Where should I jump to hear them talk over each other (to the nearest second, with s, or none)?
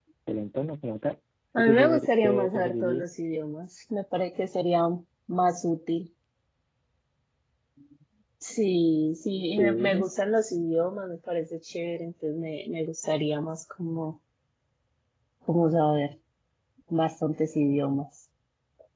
2 s